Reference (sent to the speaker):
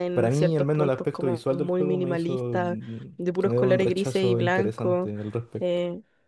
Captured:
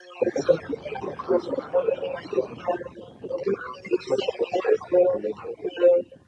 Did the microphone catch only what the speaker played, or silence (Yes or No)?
Yes